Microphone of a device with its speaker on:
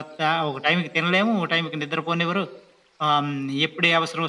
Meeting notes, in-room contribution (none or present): none